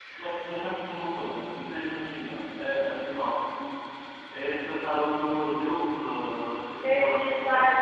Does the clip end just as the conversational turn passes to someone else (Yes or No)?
Yes